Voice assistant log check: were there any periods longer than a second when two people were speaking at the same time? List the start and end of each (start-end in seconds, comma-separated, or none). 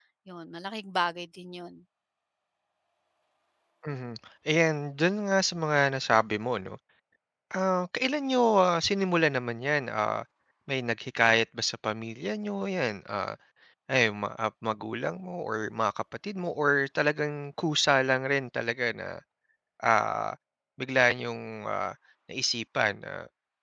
none